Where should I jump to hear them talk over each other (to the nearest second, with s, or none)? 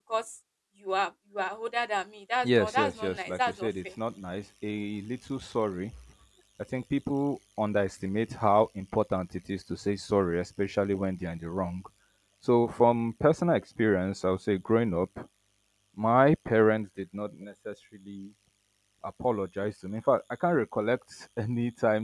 2 s